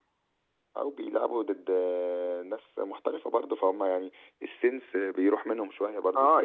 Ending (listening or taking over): taking over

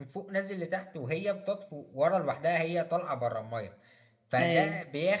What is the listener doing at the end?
listening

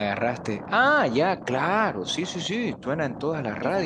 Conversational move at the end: taking over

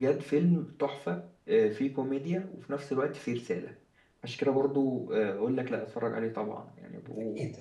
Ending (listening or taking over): taking over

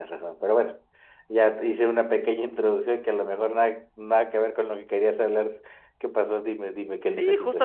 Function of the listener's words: taking over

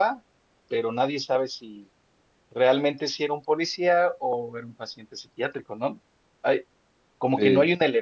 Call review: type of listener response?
listening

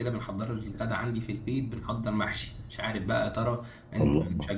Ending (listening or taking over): listening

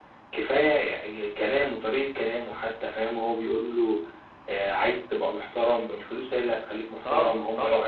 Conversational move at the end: taking over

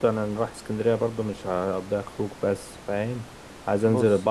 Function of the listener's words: listening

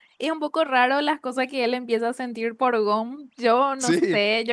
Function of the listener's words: listening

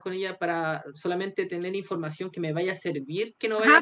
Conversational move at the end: taking over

